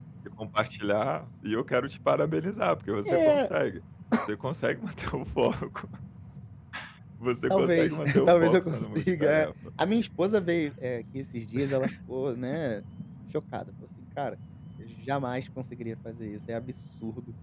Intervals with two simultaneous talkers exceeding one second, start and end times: 7.5-9.5

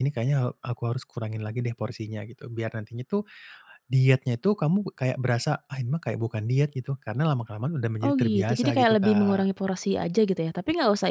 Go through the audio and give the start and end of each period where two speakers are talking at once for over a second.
8.1-9.5

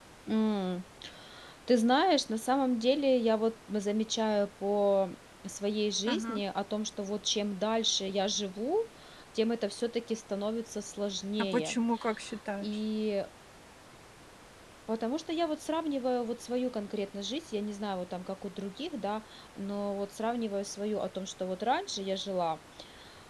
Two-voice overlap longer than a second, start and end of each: none

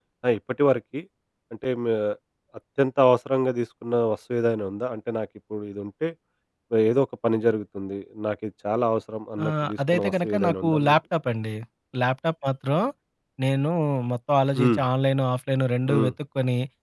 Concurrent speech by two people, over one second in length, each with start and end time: 9.4-10.9

